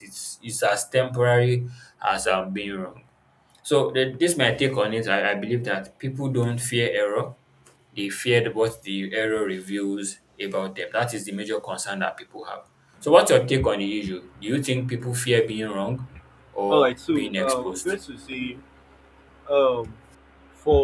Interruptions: present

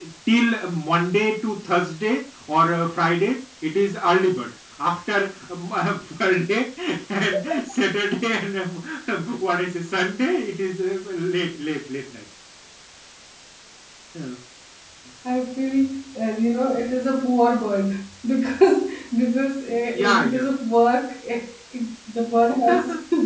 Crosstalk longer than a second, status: none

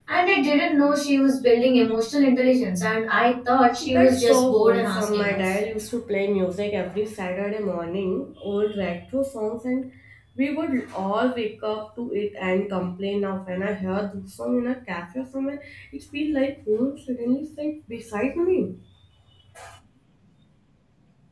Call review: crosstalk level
present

